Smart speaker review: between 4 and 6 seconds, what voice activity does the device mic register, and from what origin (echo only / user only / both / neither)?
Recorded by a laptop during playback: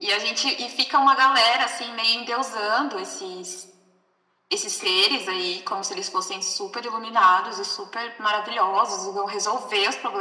echo only